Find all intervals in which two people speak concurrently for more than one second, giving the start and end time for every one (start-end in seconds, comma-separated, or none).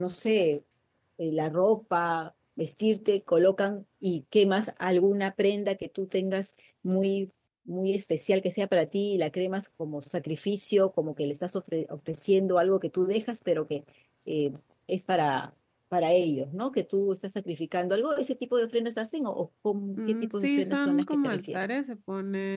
20.0-21.6